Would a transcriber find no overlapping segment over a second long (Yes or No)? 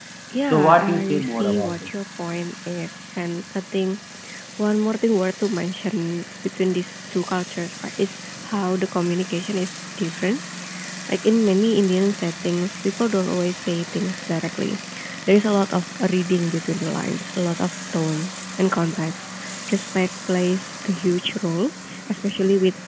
No